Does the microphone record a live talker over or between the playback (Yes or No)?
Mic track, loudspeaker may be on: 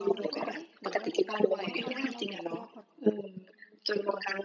Yes